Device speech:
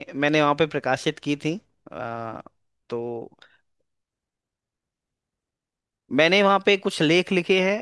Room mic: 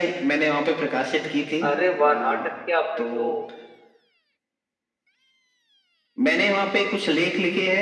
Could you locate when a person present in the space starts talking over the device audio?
1.7 s

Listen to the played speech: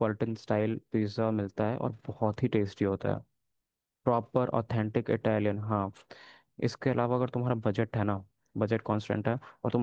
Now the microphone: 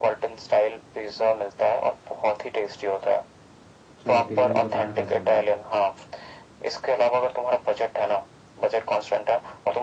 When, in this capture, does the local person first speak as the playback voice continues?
4.0 s

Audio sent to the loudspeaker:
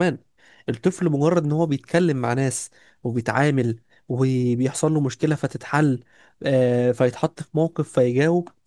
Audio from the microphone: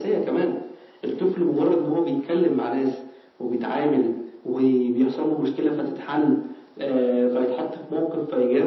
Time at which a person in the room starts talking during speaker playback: none

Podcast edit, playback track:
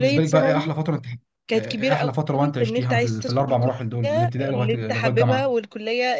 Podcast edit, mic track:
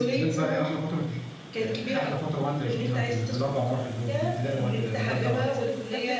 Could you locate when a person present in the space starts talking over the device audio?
5.0 s

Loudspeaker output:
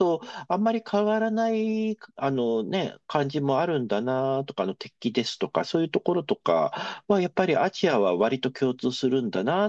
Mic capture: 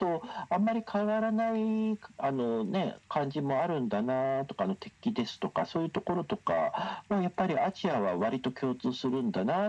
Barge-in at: none

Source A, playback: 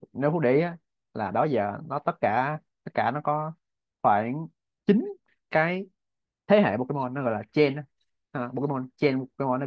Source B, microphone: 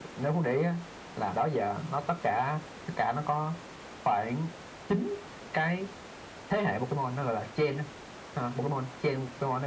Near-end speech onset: none

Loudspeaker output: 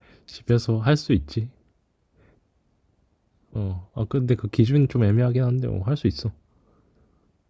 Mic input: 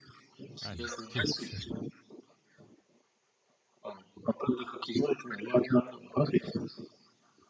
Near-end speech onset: 0.6 s

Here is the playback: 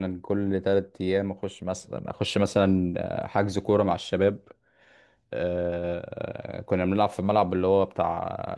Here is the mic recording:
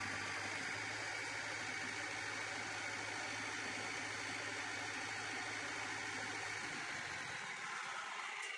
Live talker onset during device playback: none

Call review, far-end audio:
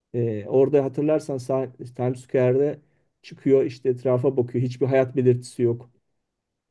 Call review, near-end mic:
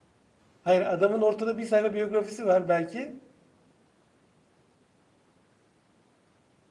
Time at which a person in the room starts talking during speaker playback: 0.6 s

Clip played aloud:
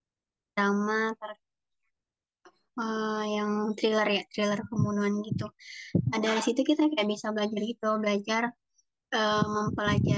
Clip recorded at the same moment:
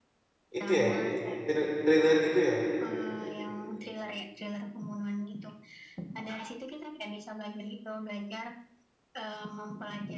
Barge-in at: 0.6 s

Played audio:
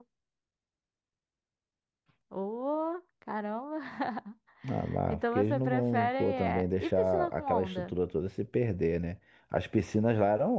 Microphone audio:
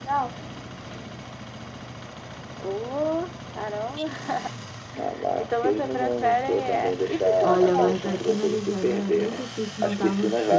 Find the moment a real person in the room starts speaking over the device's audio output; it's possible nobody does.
7.4 s

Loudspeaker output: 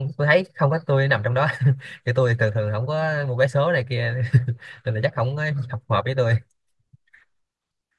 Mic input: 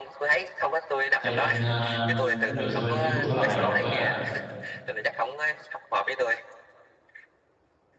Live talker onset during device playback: 1.2 s

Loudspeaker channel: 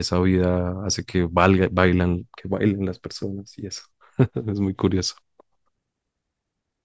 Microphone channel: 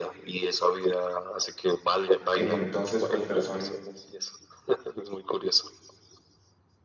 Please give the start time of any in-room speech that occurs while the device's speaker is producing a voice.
2.3 s

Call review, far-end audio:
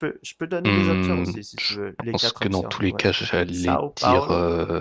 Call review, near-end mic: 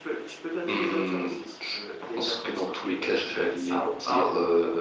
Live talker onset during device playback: none

